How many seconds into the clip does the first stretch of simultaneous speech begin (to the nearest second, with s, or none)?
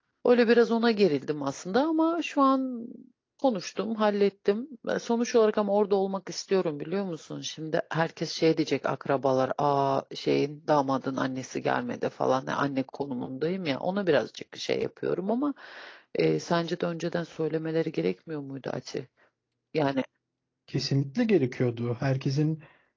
none